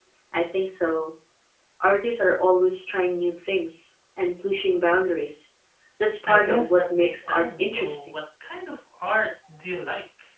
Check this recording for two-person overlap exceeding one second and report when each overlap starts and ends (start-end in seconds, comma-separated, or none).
6.3-8.2